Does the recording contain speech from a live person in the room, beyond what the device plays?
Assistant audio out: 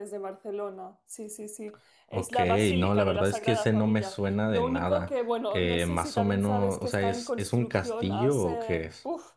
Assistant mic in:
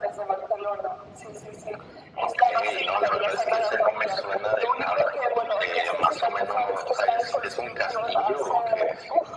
No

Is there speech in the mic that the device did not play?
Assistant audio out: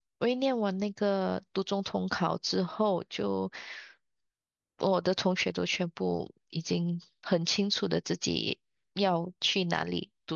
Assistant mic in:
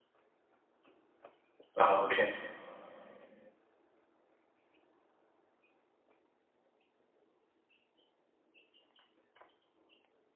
Yes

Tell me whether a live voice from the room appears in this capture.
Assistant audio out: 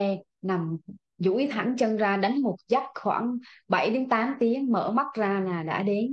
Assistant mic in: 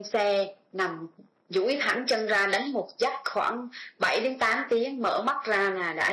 No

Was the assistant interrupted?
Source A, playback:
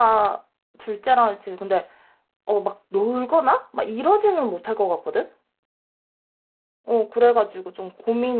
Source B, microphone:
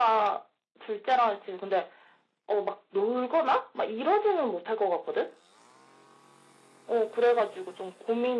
No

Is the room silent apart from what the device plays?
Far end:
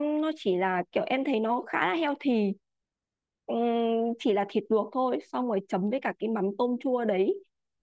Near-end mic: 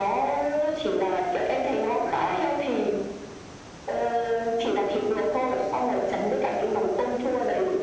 Yes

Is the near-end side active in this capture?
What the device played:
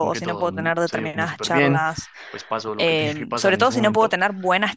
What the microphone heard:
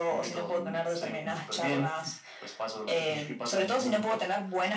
No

